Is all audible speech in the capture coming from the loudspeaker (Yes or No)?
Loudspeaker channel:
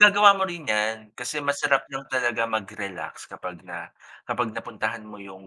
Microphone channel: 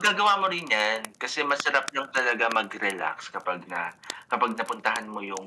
Yes